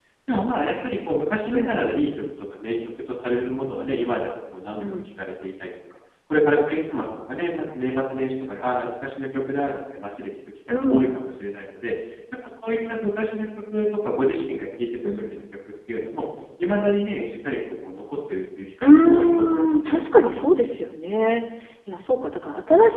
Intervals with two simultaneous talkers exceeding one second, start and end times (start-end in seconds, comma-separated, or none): 18.8-20.0